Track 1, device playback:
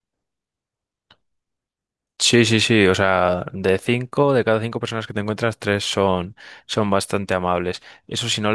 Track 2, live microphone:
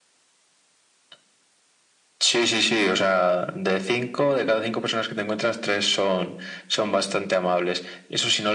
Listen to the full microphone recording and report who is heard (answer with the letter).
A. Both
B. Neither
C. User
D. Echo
D